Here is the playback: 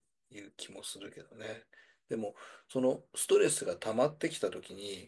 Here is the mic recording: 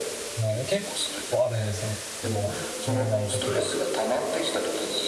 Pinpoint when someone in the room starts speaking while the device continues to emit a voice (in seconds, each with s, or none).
0.4 s